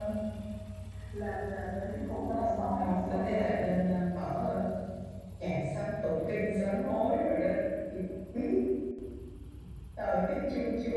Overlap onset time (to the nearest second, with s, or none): 2 s